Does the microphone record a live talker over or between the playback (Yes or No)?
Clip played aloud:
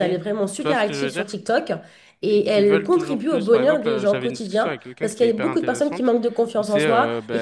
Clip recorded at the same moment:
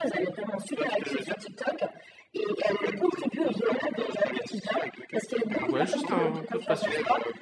Yes